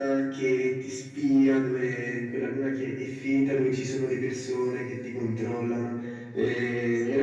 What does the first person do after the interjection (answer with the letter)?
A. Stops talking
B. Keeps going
B